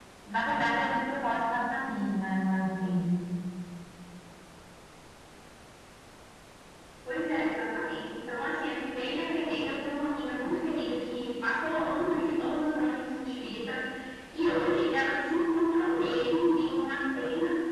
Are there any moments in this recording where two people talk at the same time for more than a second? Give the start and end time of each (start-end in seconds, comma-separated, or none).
none